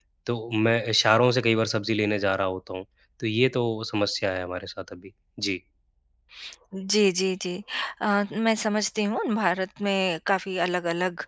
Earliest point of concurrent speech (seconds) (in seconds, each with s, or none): none